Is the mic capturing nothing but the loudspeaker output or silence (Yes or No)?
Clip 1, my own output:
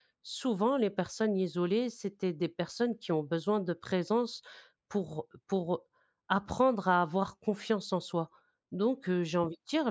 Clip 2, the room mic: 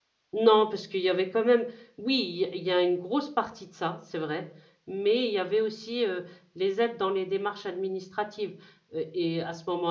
No